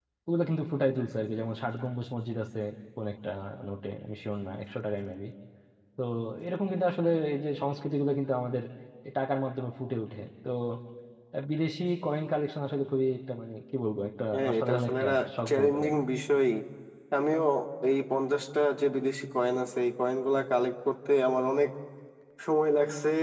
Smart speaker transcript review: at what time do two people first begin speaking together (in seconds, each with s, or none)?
14.3 s